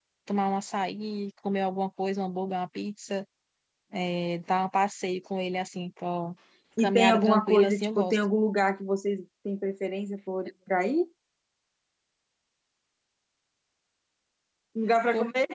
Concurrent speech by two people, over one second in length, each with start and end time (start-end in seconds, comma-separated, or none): 6.8-8.2